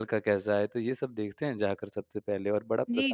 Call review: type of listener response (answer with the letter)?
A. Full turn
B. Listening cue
A